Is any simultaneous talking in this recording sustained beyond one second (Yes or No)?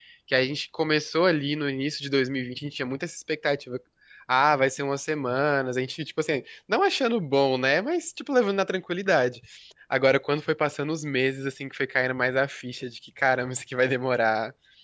No